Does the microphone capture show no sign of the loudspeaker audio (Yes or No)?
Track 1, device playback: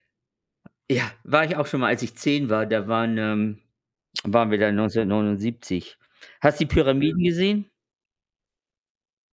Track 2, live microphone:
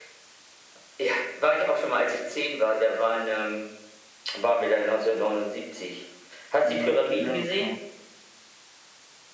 No